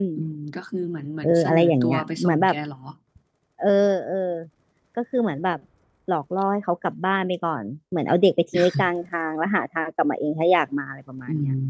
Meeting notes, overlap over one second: present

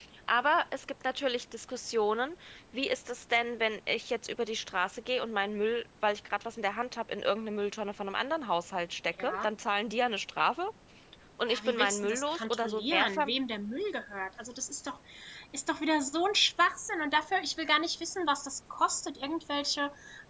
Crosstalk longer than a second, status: present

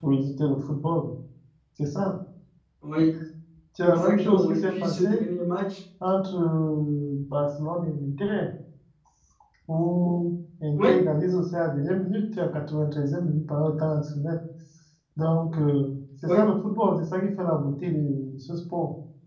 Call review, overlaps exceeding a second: present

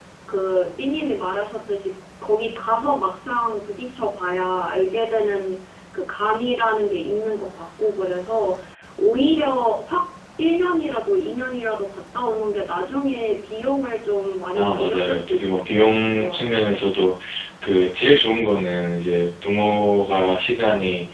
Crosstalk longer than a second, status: present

